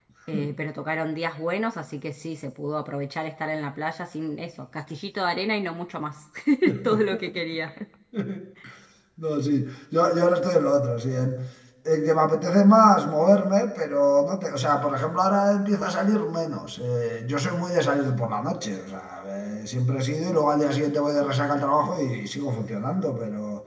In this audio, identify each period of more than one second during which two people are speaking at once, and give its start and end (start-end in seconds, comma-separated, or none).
none